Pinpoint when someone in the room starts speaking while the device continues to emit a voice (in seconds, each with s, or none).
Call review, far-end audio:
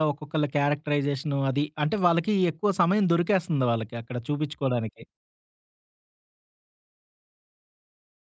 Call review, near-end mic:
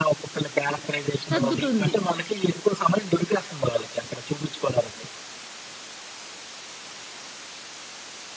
1.3 s